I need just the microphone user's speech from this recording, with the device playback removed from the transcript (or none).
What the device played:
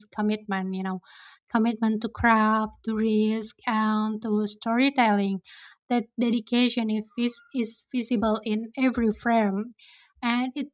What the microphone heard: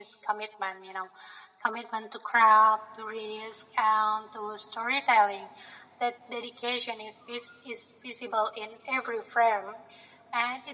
none